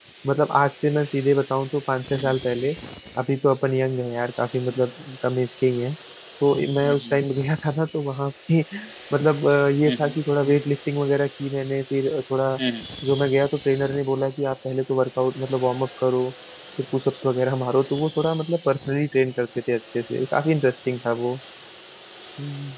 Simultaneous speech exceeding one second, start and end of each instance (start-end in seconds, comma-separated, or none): none